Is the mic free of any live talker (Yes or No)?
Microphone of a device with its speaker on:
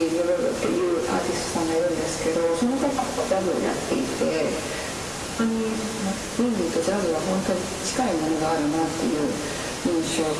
Yes